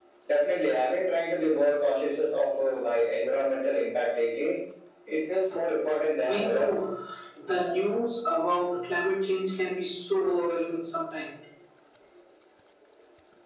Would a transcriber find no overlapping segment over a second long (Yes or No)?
Yes